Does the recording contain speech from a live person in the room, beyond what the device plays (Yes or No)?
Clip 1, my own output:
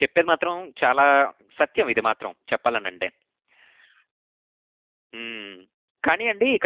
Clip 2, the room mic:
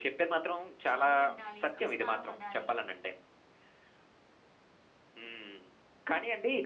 Yes